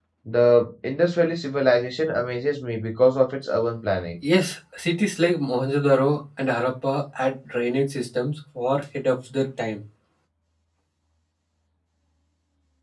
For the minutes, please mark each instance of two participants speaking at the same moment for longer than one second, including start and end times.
none

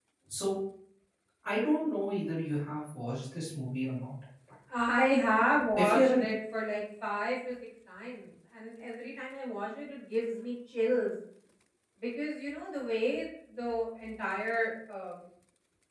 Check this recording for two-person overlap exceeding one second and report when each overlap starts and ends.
none

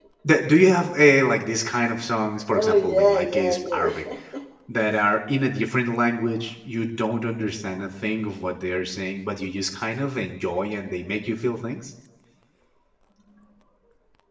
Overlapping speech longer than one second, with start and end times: 2.5-4.0

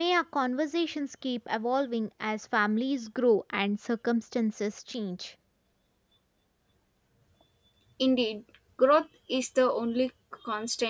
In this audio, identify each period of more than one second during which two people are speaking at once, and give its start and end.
none

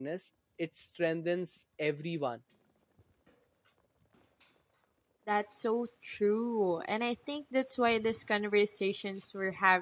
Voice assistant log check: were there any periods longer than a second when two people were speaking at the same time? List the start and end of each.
none

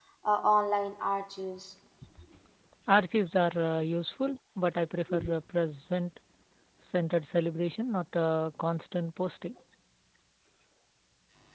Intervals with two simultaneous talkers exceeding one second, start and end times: none

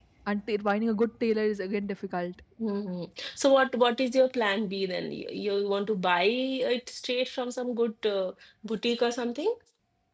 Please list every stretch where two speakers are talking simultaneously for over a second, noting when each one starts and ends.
none

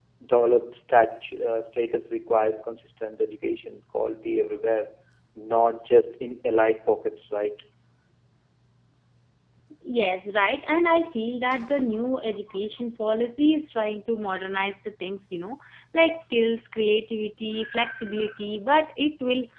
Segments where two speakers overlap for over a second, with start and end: none

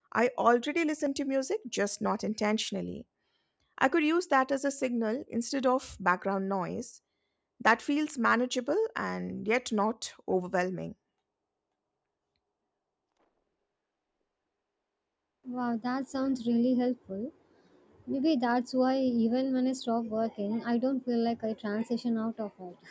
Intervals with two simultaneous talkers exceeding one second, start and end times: none

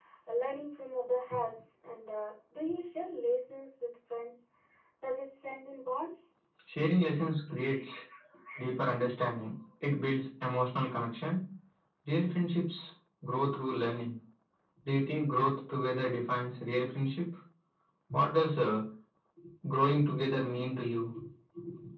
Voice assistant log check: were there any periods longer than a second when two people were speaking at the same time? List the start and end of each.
none

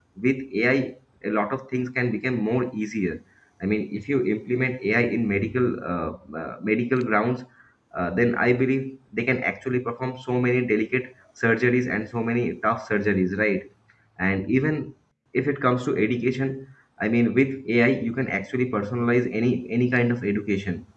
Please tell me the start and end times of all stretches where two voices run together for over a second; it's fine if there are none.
none

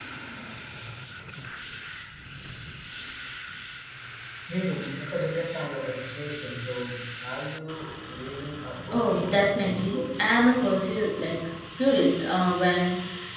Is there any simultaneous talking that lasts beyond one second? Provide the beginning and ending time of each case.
8.9-10.3

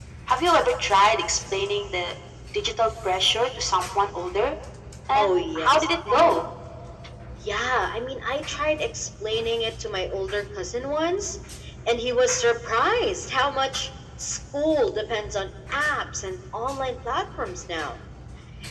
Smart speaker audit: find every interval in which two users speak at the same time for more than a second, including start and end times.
5.2-6.4

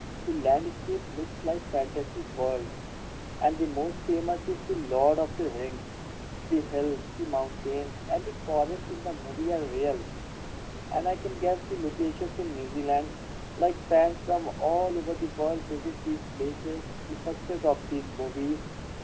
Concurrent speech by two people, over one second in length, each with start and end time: none

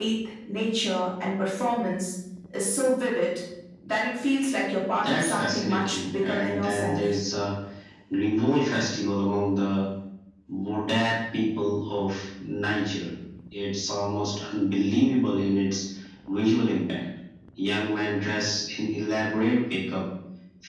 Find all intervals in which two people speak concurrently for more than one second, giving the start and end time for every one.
5.0-7.0

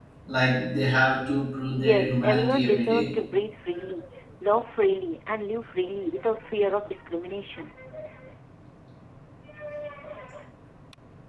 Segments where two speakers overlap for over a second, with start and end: 1.8-3.1

